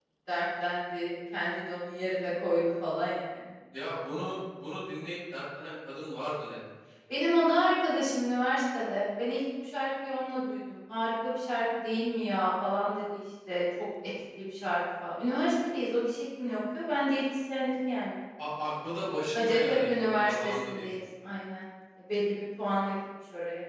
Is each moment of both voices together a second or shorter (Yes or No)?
No